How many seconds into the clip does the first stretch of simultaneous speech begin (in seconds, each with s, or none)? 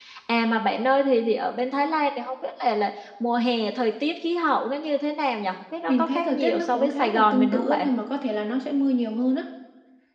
5.9 s